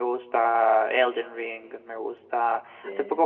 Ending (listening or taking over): listening